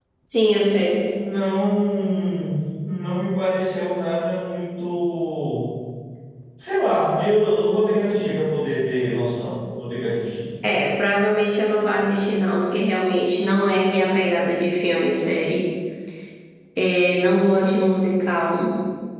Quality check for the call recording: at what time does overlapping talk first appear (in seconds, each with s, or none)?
none